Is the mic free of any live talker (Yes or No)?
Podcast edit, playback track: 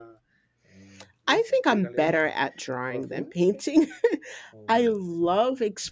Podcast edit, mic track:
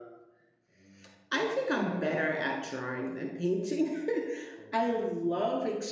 Yes